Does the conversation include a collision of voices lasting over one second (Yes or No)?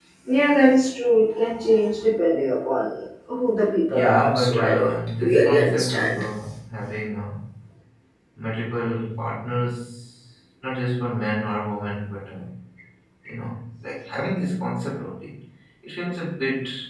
Yes